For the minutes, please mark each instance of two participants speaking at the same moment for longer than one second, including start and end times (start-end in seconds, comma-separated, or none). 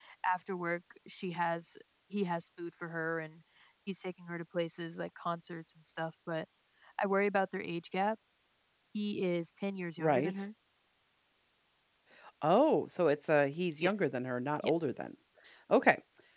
none